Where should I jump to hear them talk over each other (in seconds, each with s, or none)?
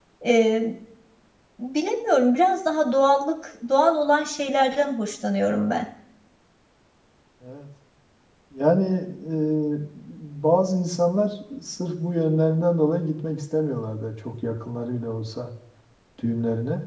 none